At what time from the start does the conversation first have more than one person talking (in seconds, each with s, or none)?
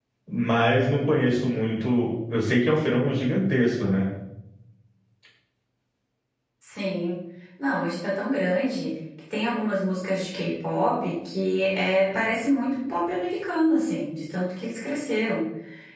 none